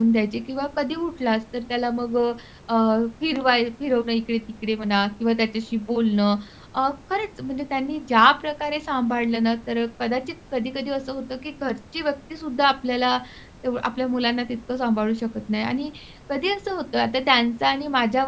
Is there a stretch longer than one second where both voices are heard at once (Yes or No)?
No